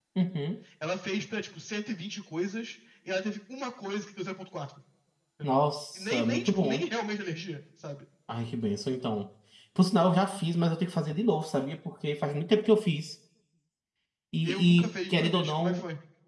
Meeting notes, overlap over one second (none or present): present